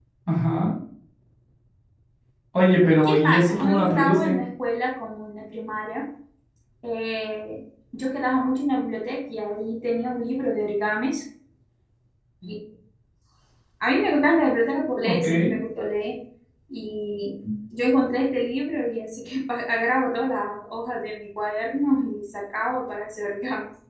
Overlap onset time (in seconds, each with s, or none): 3.0 s